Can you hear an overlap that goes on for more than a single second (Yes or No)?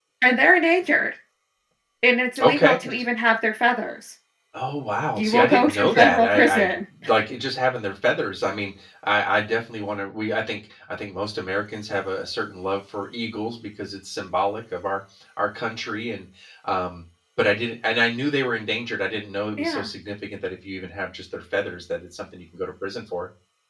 Yes